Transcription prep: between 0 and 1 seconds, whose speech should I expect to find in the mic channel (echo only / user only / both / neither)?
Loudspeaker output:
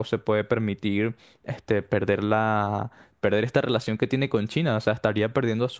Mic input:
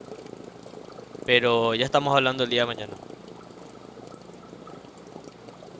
neither